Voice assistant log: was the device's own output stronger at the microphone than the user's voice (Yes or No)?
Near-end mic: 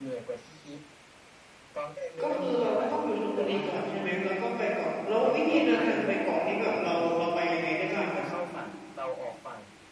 No